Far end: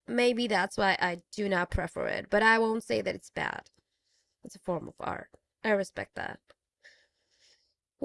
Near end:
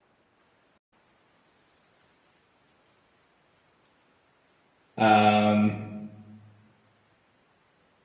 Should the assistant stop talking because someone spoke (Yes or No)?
Yes